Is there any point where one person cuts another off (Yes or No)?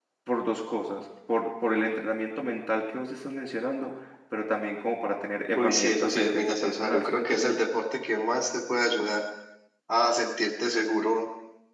Yes